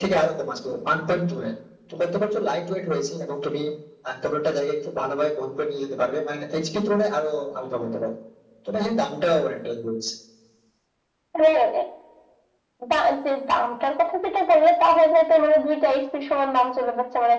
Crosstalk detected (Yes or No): No